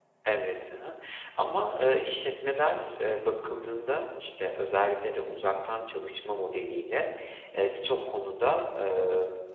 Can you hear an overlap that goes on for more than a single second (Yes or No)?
No